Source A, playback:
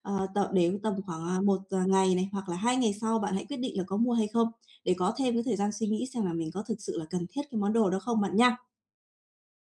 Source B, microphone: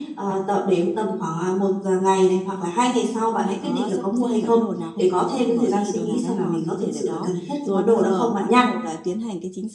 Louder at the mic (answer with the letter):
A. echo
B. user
A